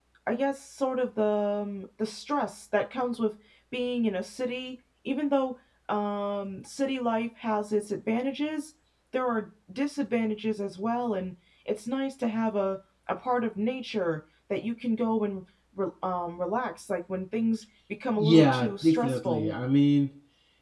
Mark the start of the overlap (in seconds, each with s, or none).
18.1 s